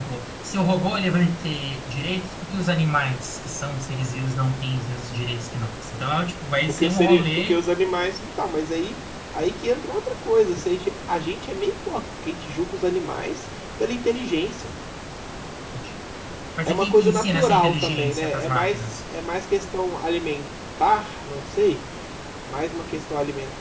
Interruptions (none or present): present